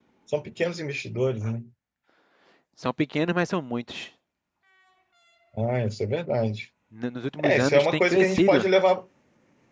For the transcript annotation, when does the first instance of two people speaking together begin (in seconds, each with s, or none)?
7.4 s